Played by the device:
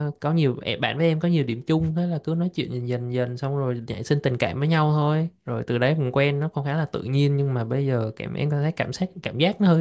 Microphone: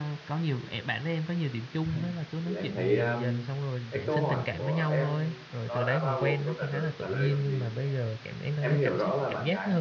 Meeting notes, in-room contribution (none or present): present